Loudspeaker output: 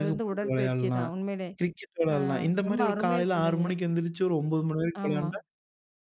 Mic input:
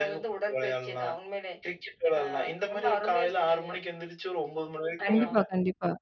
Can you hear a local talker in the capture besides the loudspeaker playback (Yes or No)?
Yes